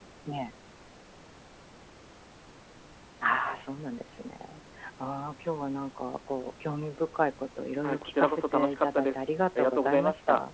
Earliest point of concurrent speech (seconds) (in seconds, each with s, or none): 7.8 s